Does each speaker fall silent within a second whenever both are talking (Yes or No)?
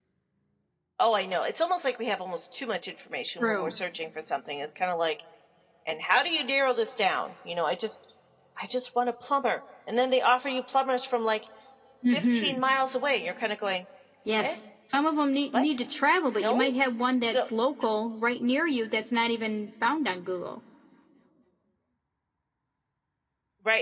Yes